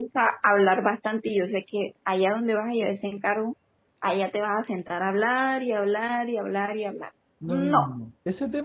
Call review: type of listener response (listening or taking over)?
taking over